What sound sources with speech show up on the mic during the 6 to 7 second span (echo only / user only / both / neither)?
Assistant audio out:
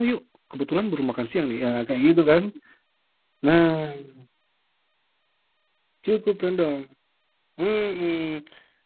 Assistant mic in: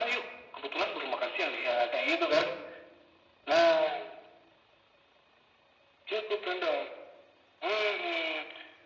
echo only